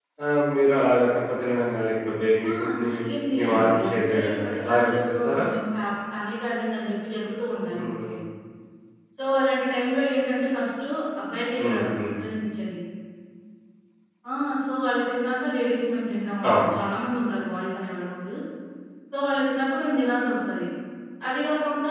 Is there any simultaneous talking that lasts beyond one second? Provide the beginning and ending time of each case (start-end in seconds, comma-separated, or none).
3.4-5.4